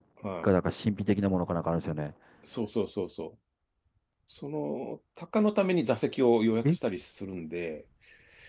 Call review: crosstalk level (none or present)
none